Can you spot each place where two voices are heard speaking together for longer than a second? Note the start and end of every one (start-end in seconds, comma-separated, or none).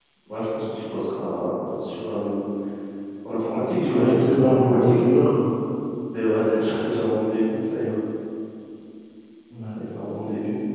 3.7-5.0